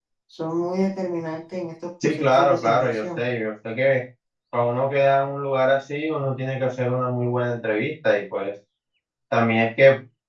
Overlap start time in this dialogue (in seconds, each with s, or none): 2.0 s